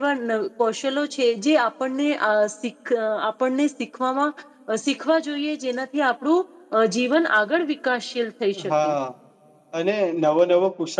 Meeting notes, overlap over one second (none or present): none